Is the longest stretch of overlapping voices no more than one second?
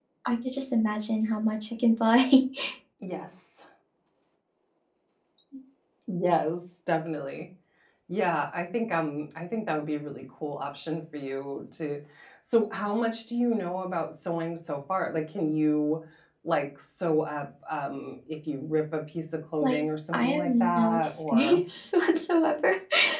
No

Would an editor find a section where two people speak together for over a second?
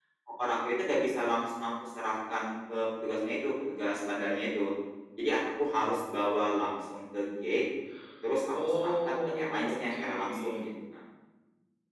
Yes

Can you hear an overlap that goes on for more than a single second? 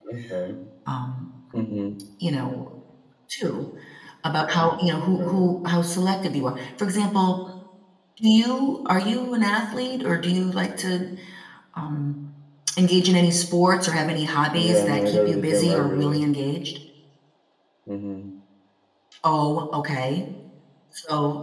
Yes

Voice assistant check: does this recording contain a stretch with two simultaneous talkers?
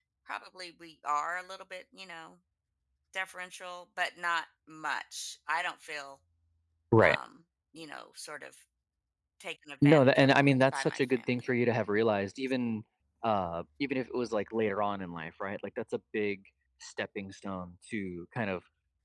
Yes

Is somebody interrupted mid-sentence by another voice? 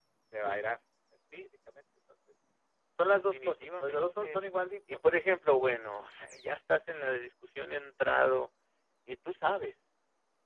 Yes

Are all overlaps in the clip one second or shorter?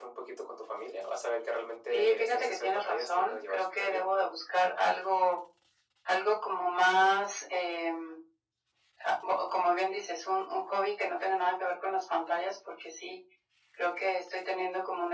No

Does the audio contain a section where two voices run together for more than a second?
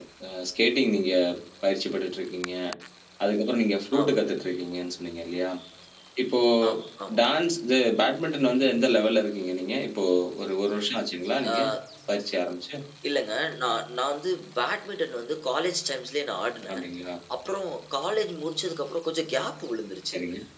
No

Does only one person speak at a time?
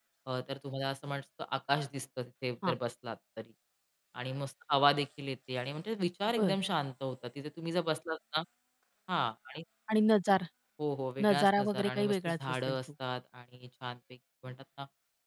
No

